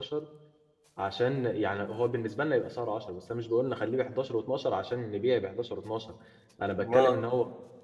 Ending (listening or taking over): listening